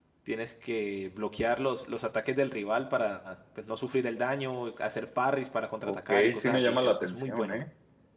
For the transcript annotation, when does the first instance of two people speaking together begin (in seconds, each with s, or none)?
5.8 s